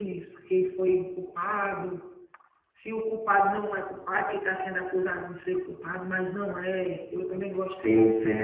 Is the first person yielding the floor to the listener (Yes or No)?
Yes